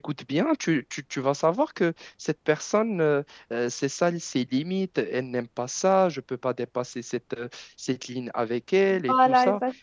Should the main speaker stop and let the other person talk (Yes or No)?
Yes